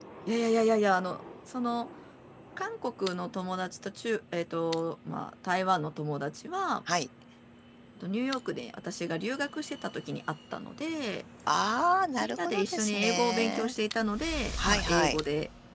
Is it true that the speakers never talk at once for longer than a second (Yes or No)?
No